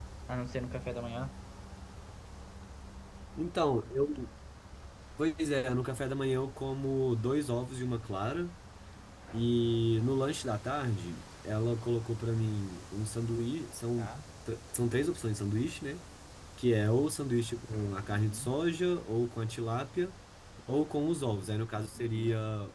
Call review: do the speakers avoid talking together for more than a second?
Yes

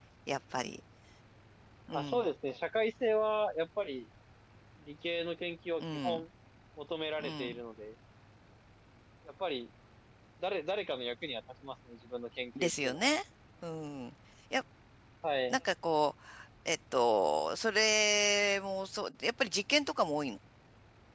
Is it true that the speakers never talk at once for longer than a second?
Yes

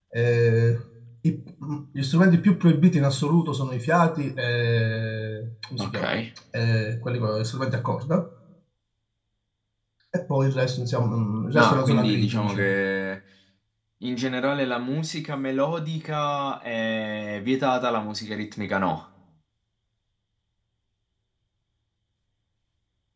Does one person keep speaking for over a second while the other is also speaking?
Yes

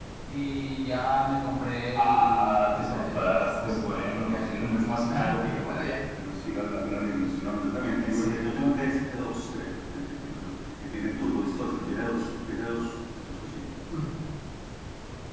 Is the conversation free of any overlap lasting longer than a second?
No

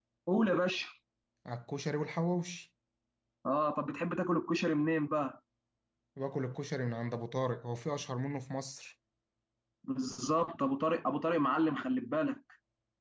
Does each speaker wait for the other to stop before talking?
Yes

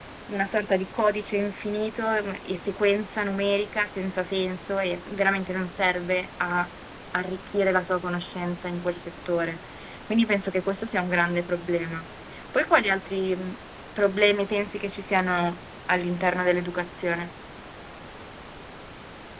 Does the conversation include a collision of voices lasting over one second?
No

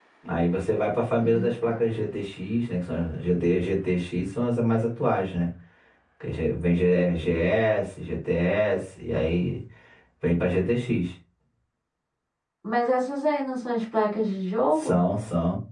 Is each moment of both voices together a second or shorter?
Yes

